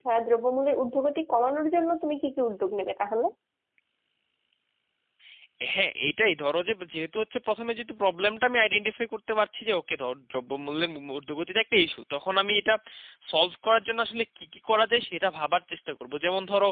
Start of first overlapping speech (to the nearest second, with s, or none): none